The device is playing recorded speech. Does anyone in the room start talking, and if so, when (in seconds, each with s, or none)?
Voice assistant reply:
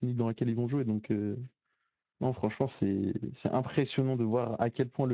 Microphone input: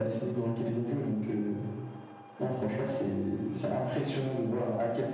none